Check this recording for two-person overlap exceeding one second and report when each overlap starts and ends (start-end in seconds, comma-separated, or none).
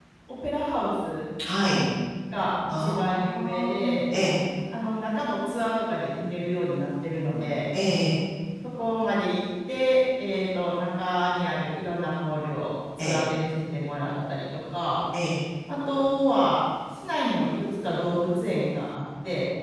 2.7-3.9